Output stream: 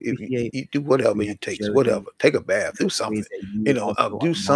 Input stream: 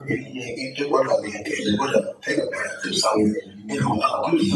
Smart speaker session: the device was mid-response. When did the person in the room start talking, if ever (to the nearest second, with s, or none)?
none